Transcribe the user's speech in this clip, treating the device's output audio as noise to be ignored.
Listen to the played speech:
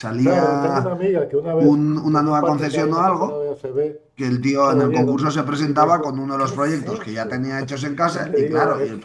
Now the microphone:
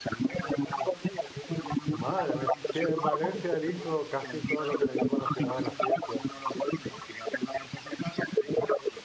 madre mía. Sí, en Valencia él hizo casi todo lo que le llaman la ciudad de las ciencias,

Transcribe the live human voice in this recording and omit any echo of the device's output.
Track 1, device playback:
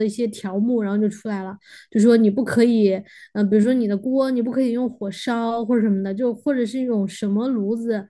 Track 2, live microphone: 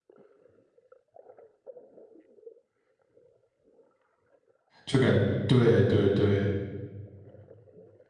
就感对对对

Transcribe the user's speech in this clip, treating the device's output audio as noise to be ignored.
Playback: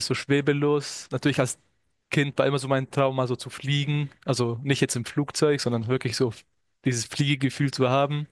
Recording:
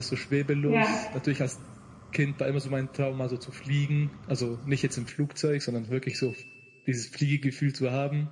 Ja.

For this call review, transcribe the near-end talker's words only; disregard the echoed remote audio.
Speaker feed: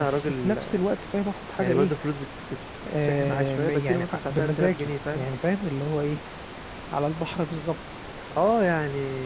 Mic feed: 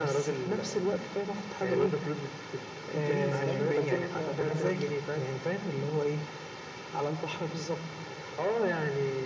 ادريس باين او بكار حاجه كده

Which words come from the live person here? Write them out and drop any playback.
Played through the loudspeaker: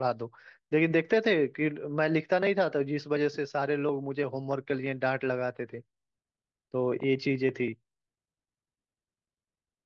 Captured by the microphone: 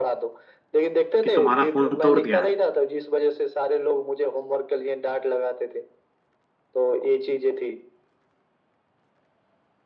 कि तुम्हारा फोन तोड़ दिया है

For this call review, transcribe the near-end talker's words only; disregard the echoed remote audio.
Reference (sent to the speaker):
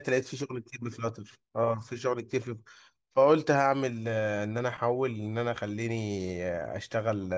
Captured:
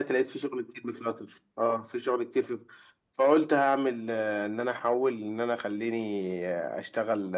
none

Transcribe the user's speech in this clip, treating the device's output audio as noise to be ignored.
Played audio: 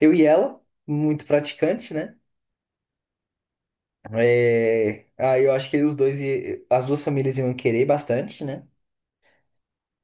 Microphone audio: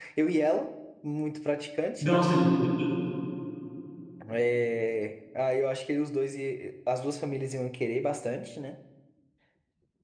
Nossa, depois,

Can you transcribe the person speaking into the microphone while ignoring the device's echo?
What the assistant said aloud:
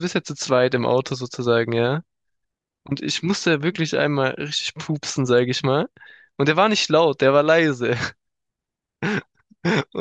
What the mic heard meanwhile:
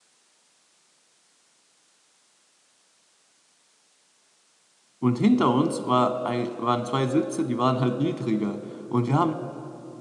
Und hinter uns war ein, waren zwei Sitze, die waren halt niedriger. Und wir haben

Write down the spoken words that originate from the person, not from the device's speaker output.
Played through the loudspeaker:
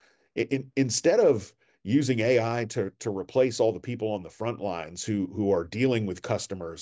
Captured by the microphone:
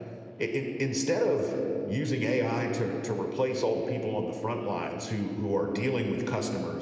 none

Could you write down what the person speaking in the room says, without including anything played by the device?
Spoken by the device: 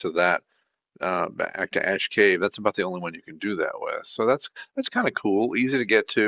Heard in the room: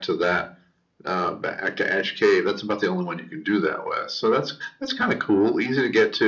none

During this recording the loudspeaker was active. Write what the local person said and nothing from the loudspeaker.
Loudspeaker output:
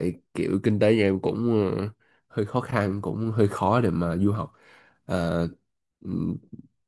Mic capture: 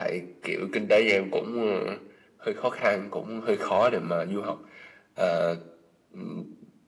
none

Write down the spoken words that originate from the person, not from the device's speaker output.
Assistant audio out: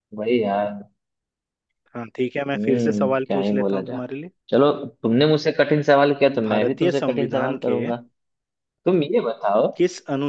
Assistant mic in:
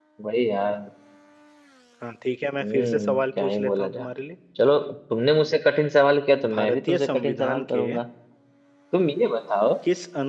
none

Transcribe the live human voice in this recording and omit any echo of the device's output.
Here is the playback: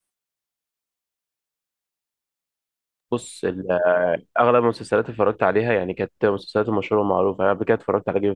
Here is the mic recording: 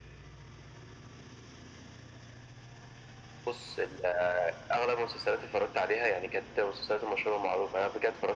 none

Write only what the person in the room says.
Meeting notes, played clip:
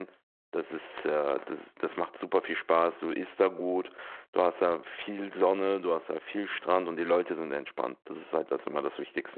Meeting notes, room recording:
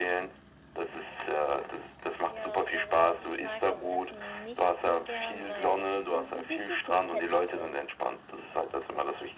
Ja, also ich mag das Essen nicht so gern, weil es ist mir so ein bisschen zu fettig ist.

